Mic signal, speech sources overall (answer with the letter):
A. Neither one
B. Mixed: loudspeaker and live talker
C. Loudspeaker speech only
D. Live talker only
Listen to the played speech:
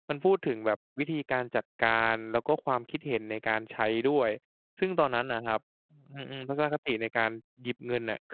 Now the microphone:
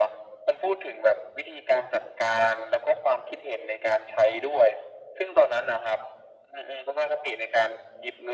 C